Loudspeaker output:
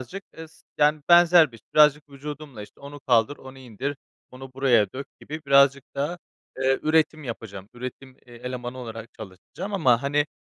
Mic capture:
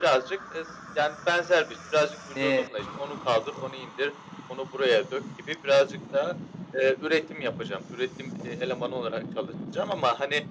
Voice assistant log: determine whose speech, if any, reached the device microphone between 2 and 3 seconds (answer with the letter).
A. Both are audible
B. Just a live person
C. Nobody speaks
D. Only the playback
A